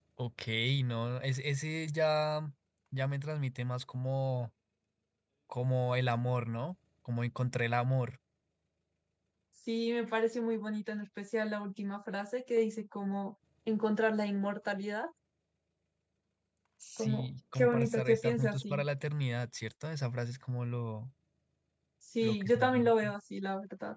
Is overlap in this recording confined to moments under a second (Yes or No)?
No